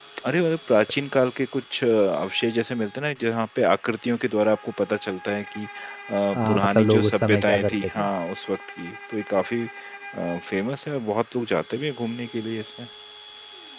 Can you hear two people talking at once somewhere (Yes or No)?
Yes